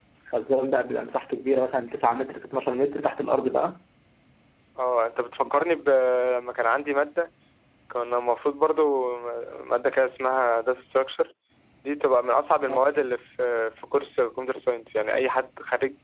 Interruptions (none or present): none